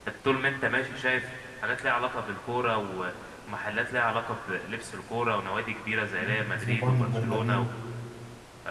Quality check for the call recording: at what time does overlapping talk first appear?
6.2 s

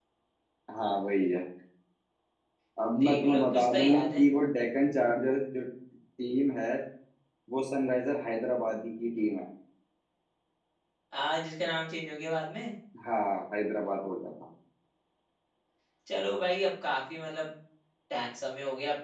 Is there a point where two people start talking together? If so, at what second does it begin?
3.0 s

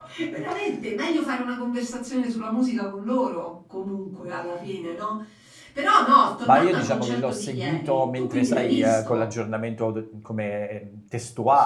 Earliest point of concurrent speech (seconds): 6.5 s

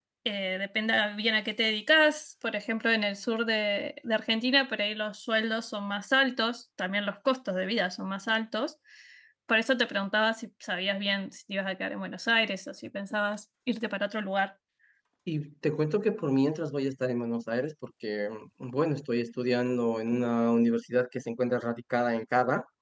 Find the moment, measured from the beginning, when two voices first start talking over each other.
none

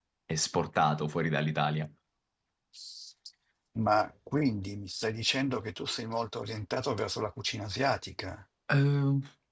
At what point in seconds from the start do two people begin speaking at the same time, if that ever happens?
none

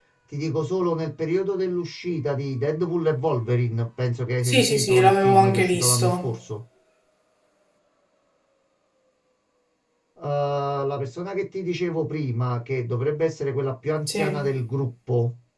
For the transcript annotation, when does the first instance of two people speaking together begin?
4.4 s

